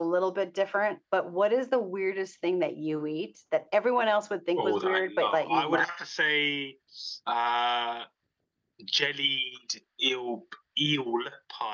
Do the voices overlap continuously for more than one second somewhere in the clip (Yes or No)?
Yes